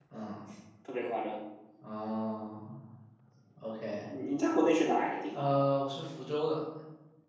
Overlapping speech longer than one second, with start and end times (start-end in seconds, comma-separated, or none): none